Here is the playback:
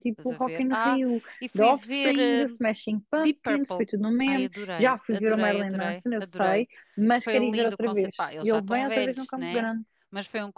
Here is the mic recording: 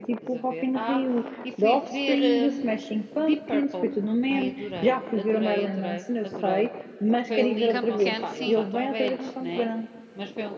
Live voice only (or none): Campo Pequeno, sim.